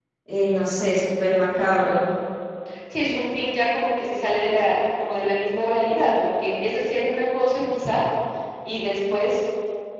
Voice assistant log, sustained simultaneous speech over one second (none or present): none